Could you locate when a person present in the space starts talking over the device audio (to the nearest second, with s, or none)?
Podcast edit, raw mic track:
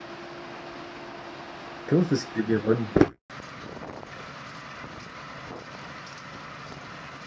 2 s